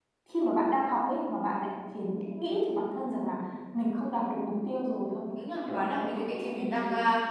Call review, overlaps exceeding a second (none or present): present